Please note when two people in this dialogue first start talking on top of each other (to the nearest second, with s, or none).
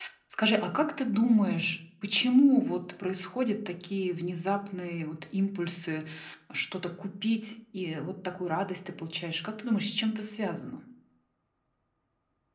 none